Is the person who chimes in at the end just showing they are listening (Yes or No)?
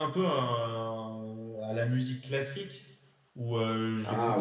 Yes